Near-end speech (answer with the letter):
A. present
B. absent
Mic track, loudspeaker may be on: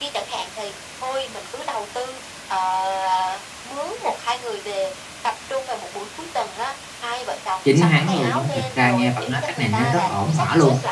A